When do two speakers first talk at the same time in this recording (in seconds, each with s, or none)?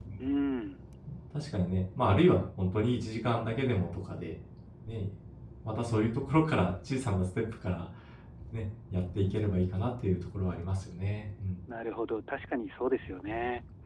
none